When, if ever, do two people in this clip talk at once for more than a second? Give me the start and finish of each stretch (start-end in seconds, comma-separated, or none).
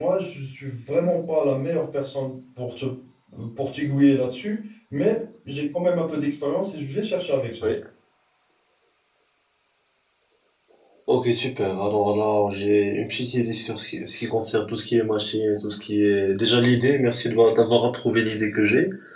none